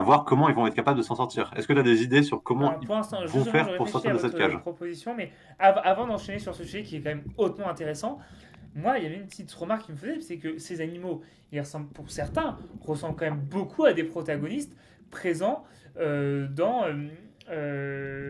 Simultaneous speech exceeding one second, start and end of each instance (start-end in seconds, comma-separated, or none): 2.6-4.6